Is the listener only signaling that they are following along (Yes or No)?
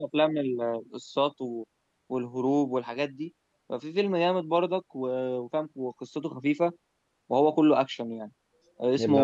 Yes